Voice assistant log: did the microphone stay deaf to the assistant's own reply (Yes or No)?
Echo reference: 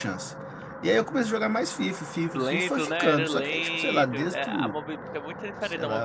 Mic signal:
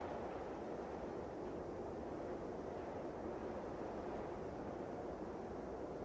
Yes